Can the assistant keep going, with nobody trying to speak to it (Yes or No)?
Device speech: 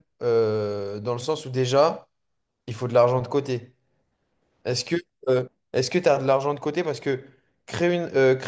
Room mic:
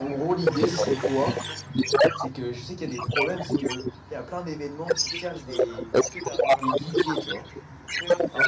No